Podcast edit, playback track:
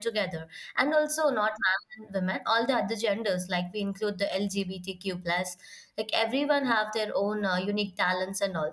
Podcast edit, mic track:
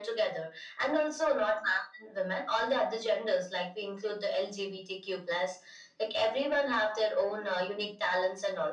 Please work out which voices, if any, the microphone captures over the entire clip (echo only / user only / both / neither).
echo only